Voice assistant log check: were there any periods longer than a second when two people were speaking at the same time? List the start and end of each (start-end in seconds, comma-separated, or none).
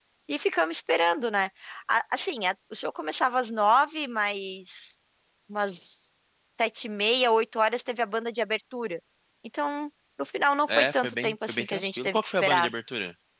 10.7-12.7